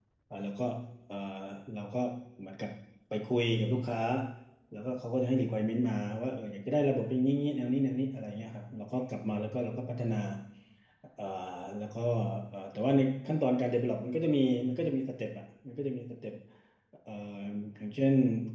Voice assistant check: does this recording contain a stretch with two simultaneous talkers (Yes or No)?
No